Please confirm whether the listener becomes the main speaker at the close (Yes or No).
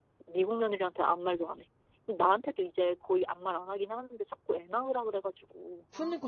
Yes